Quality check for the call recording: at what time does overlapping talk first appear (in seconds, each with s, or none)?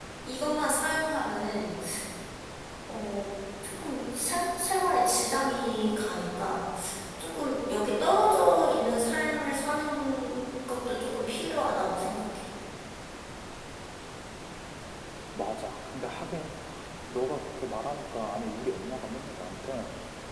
none